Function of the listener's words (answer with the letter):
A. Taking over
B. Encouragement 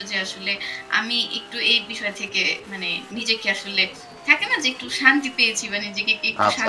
A